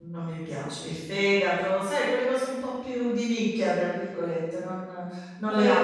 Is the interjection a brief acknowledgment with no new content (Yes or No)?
No